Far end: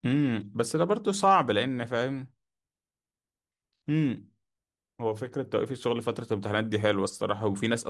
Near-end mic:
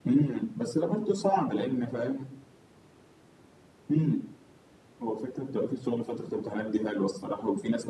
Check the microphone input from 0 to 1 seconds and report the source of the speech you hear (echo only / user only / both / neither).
echo only